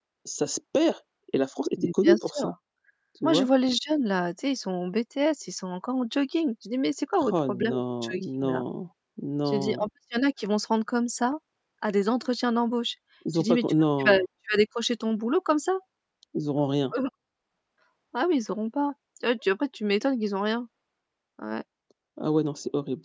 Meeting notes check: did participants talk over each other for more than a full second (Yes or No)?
Yes